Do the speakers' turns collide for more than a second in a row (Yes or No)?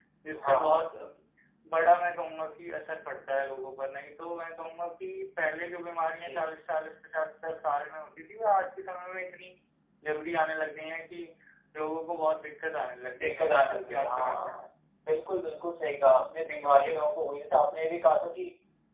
Yes